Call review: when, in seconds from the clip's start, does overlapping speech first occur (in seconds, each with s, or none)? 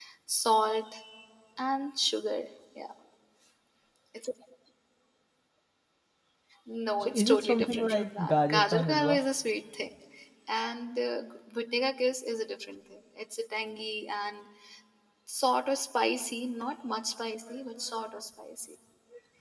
7.0 s